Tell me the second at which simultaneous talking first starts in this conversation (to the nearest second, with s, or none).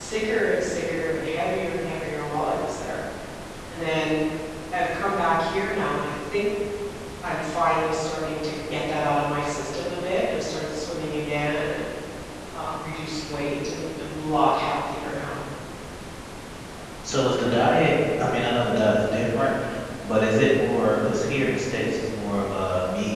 none